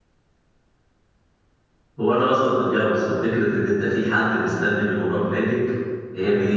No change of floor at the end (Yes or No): Yes